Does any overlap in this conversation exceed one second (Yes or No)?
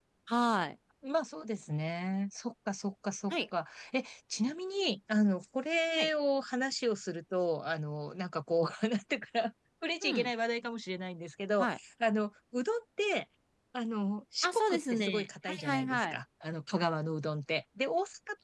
Yes